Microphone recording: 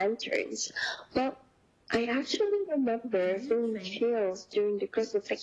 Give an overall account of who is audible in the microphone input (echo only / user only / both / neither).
both